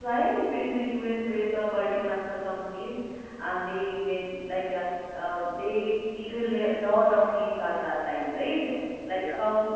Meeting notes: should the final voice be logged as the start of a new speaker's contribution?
No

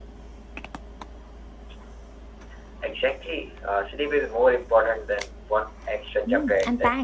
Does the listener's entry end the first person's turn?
Yes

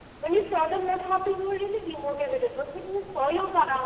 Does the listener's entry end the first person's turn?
No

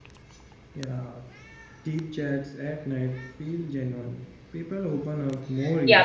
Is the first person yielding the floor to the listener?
Yes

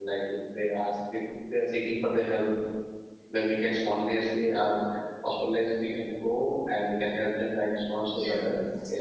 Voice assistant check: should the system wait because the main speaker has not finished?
No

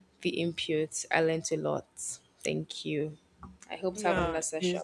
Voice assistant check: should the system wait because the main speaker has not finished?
No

